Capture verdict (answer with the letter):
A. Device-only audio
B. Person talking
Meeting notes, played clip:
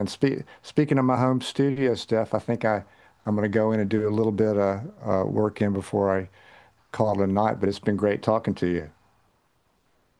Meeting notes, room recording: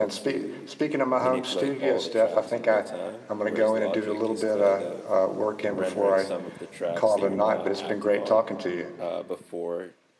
B